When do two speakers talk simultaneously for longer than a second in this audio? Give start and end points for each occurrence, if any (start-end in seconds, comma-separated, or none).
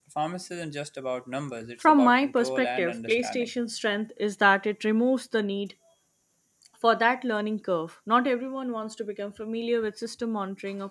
1.8-3.5